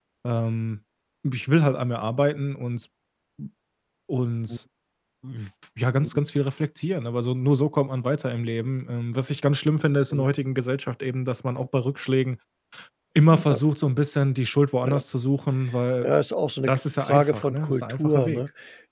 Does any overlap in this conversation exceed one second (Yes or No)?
Yes